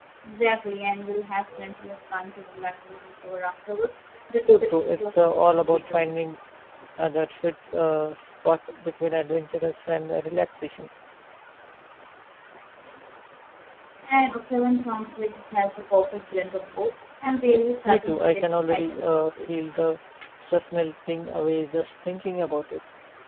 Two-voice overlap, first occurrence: 4.4 s

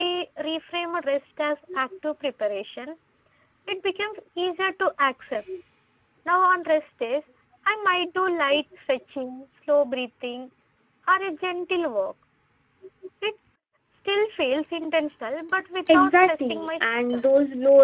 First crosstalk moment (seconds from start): 15.9 s

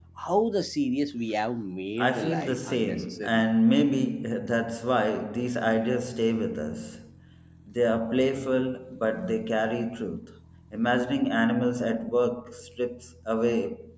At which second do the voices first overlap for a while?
2.0 s

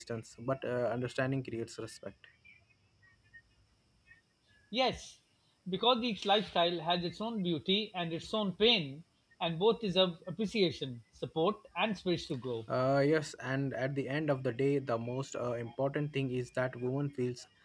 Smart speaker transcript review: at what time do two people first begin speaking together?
none

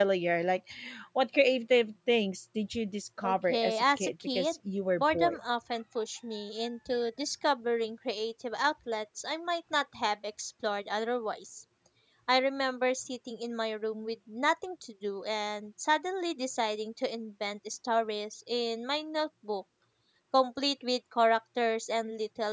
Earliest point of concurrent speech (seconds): 3.2 s

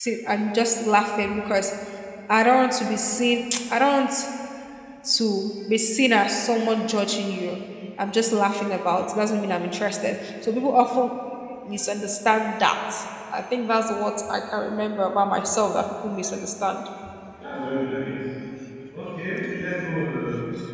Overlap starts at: none

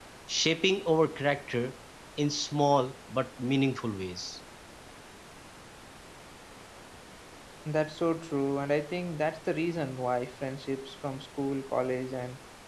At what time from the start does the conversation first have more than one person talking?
none

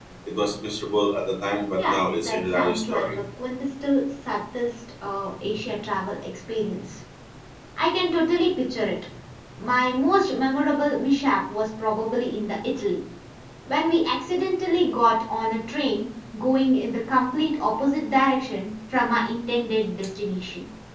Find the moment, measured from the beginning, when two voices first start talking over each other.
1.8 s

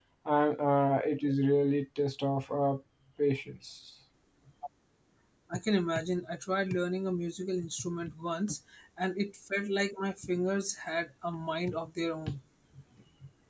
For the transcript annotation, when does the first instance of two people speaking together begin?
none

